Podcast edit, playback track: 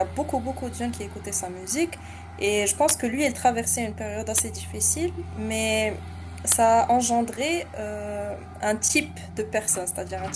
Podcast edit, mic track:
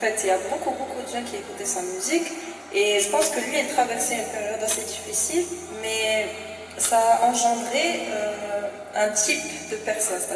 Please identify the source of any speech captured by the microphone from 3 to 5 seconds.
echo only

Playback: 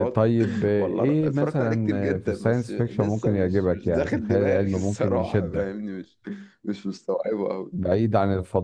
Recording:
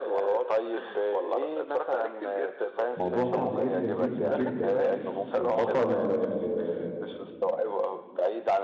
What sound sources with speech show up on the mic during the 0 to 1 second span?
echo only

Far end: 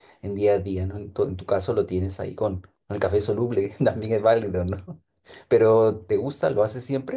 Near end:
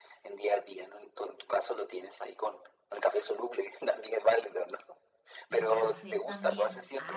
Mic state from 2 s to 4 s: echo only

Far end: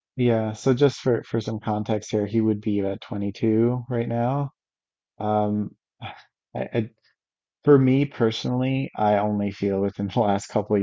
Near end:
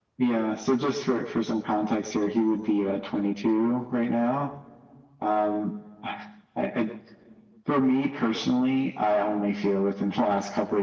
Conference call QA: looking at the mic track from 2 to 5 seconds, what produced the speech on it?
echo only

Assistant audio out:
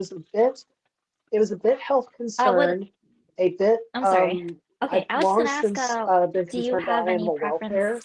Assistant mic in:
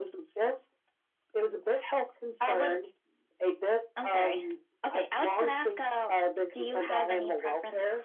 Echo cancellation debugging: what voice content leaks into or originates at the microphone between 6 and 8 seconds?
echo only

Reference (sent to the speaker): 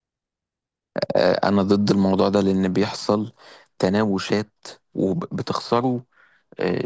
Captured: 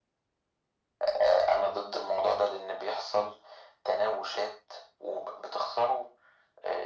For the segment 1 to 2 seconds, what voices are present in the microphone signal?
echo only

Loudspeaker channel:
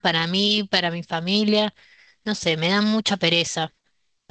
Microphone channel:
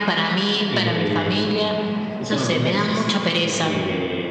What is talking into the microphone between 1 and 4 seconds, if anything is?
both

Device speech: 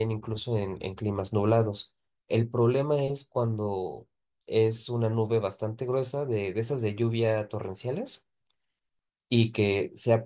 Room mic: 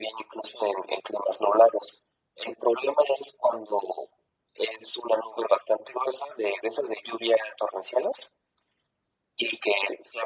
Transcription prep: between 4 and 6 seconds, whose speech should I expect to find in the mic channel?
echo only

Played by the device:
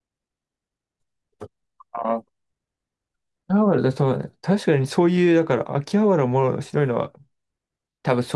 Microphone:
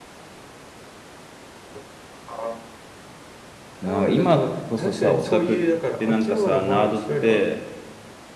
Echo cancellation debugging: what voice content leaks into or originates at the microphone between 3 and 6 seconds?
both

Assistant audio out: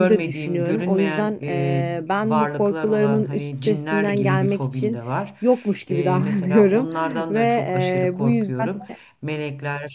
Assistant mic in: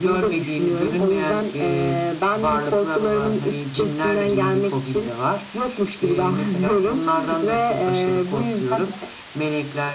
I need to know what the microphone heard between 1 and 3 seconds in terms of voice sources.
echo only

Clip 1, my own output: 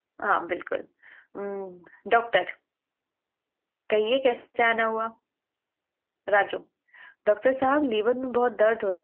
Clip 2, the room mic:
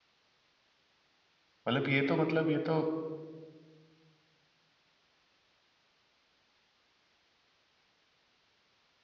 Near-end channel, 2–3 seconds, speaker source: user only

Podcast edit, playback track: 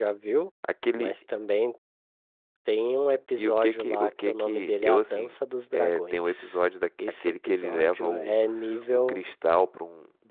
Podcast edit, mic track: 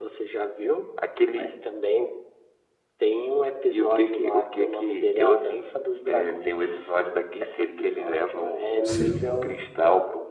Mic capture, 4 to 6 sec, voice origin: echo only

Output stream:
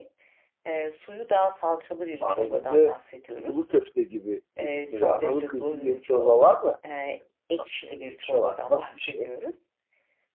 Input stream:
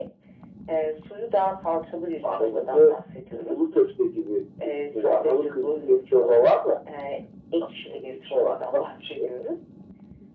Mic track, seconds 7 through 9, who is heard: echo only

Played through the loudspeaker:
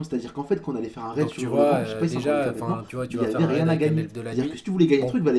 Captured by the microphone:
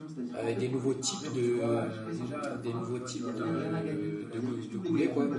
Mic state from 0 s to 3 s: both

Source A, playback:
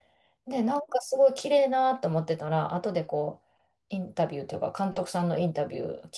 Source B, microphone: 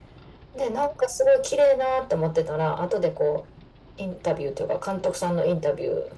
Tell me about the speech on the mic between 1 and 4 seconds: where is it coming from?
echo only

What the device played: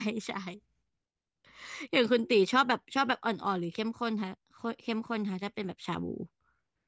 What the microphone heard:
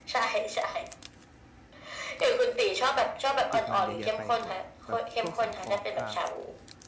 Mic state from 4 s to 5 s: both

